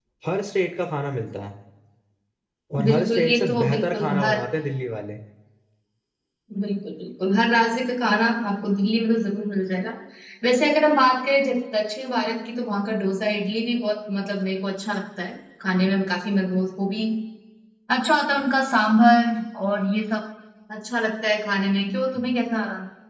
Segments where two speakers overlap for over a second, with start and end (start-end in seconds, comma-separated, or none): 2.9-4.4